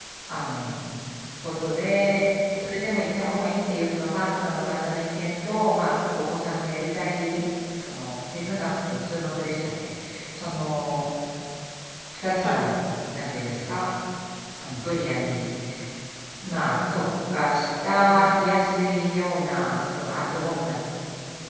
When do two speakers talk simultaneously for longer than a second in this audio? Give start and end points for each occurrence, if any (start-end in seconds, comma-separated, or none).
none